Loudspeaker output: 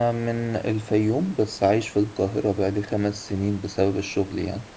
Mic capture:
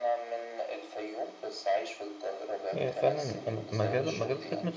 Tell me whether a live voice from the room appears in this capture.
Yes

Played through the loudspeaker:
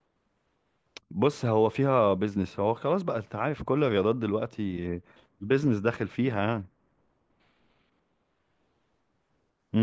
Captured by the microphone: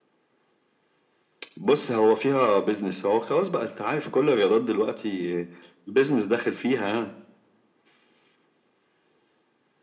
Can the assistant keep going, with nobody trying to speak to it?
Yes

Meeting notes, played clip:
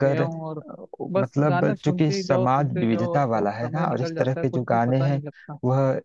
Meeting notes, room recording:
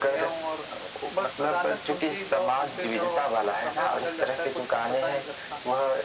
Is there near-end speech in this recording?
No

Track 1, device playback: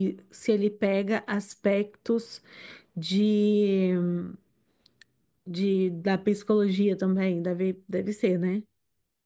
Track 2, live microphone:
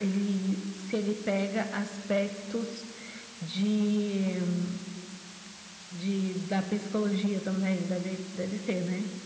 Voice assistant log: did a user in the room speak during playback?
No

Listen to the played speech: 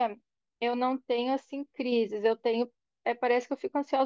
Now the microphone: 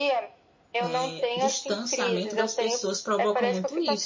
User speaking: Yes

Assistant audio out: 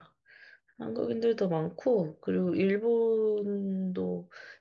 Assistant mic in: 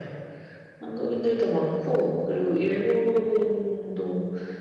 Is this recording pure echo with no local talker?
Yes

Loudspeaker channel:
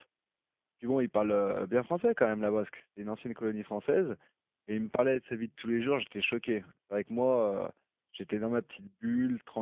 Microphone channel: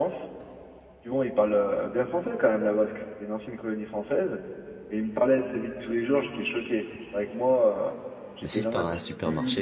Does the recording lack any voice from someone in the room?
No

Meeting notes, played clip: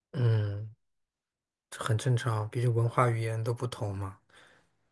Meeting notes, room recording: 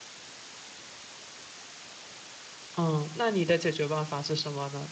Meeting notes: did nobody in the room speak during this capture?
No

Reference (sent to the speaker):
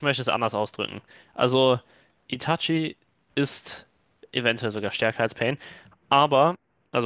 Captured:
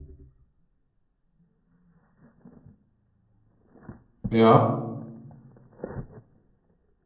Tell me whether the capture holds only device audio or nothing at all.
No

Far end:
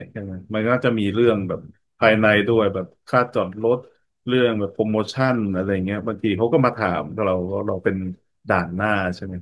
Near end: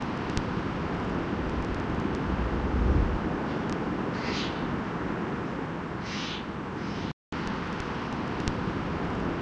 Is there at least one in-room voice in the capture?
No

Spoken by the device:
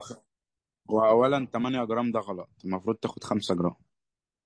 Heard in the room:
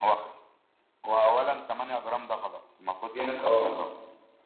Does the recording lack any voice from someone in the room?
No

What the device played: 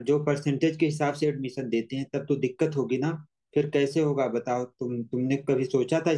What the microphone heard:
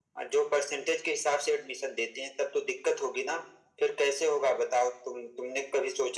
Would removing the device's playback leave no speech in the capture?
Yes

